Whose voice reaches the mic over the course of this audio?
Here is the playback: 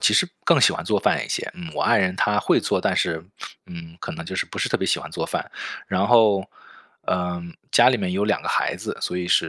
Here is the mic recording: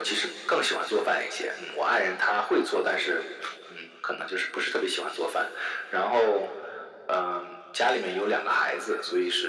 echo only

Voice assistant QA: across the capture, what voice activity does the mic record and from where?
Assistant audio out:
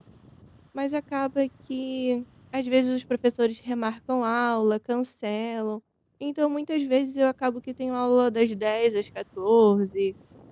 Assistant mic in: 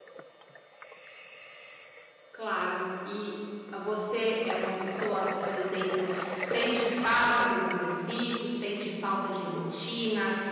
user only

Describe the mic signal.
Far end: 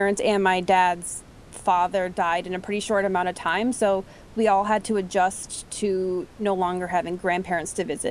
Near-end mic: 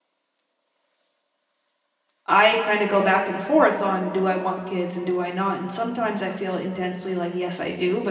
user only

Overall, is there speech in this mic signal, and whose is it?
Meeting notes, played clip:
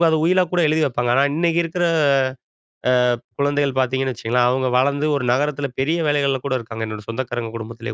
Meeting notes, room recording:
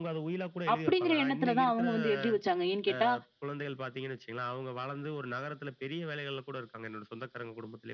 both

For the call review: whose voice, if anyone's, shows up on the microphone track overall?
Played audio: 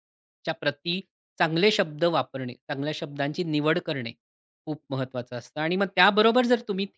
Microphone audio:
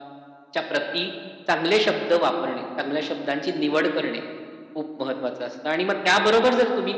echo only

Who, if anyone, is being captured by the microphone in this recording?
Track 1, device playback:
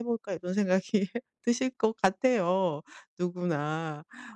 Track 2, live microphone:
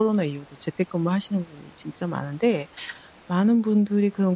user only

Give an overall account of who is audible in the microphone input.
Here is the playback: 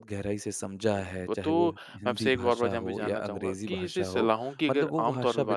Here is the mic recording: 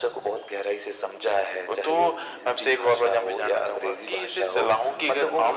echo only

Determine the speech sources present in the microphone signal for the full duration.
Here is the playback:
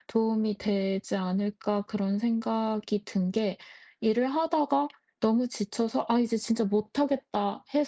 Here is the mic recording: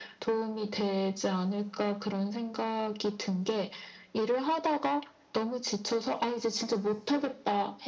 echo only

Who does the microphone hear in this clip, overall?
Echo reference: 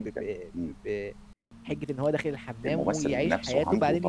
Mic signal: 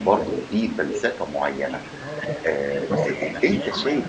both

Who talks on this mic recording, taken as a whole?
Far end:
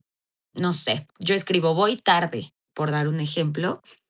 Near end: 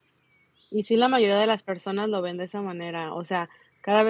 user only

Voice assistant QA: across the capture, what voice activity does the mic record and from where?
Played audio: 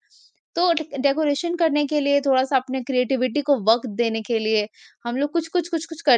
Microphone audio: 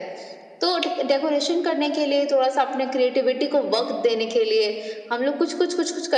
echo only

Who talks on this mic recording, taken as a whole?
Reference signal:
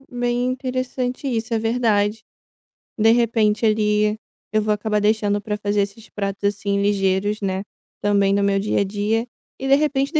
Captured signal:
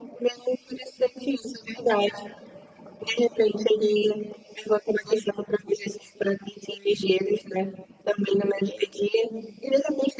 echo only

